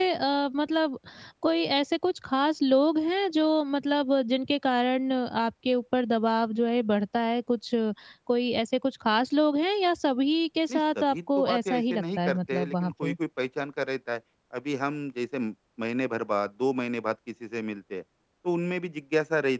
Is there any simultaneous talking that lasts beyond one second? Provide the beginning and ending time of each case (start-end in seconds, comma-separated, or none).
10.7-13.1